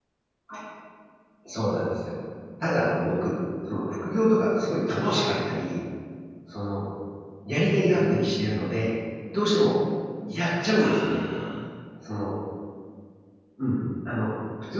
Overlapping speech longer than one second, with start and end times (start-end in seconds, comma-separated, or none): none